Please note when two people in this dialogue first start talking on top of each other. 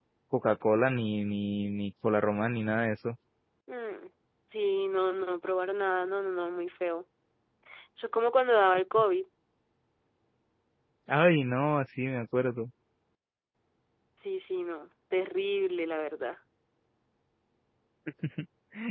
none

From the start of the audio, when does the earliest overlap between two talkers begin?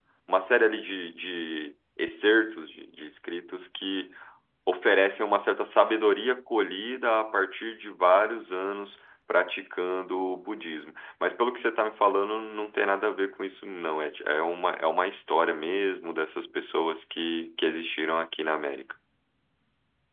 none

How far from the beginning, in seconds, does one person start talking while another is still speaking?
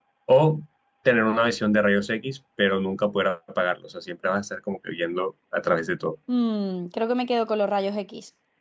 none

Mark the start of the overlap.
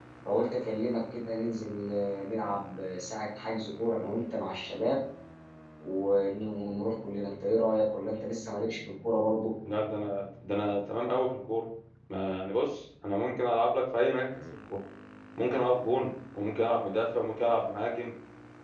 none

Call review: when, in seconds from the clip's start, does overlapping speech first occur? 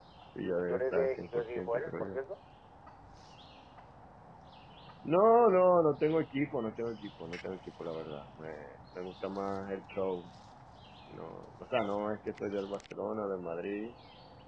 0.5 s

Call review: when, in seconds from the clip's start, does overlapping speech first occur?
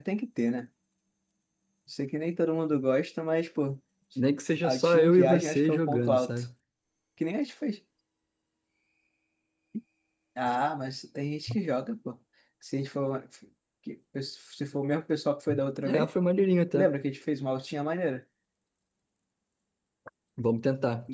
4.6 s

